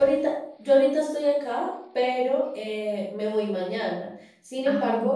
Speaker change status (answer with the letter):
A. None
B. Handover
A